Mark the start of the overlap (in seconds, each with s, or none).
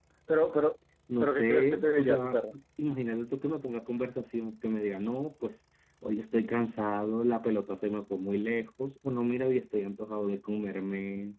1.2 s